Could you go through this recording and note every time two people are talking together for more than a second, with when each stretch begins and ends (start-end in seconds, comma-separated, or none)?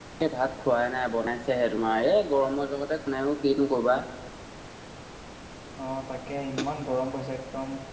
none